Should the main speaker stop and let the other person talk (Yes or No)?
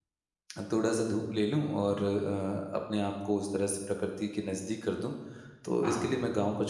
No